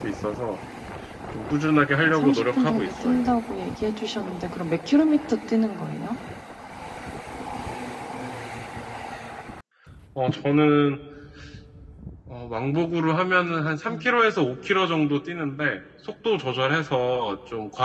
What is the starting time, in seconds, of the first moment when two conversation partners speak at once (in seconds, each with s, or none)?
2.0 s